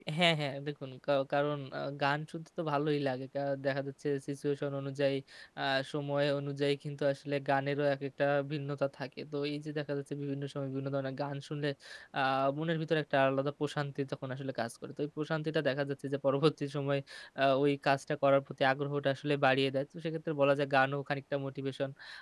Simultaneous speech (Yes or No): No